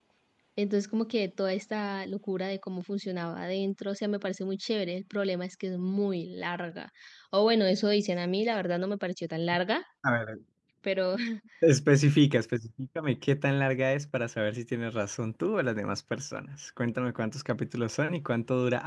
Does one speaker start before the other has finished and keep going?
No

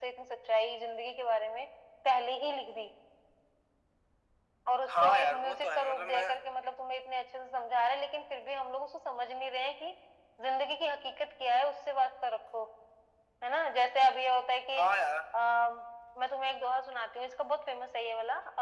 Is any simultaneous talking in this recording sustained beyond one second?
Yes, from 4.9 s

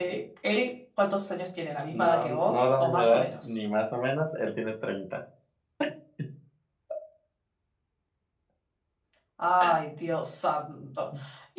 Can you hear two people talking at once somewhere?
Yes, from 1.7 s

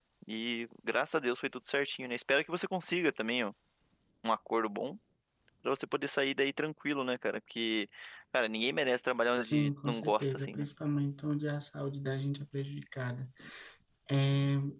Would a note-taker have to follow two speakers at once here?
Yes, from 9.4 s

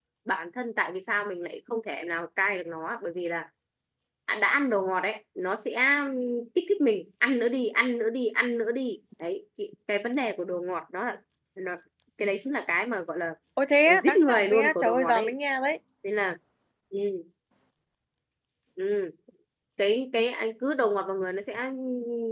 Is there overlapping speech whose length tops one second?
Yes, from 14.0 s

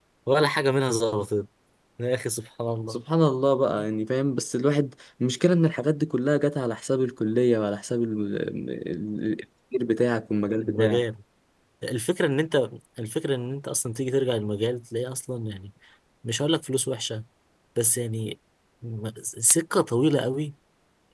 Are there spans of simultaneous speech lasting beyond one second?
No

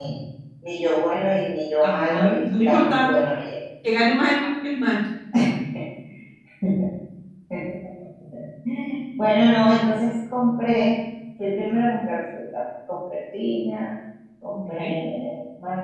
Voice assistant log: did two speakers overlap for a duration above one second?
Yes, from 1.8 s

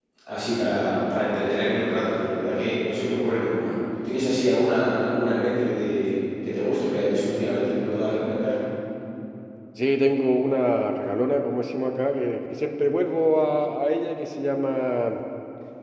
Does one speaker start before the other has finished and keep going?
No

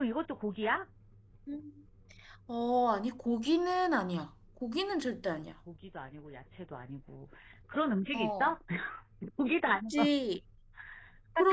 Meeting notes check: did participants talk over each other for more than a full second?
No

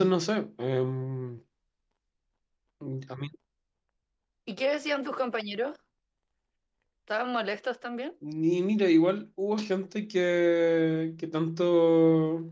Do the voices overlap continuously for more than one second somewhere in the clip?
No

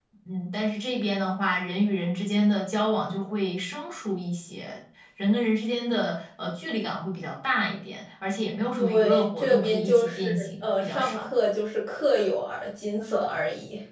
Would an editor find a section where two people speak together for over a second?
Yes, from 8.8 s

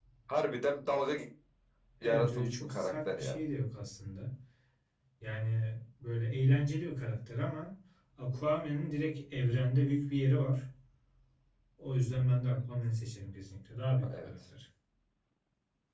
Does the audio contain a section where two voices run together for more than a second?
Yes, from 2.0 s

